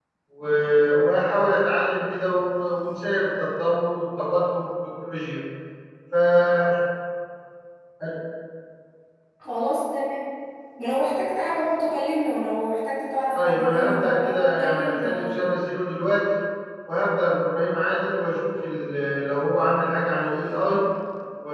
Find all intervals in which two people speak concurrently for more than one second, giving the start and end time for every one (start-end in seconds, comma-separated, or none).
13.3-15.6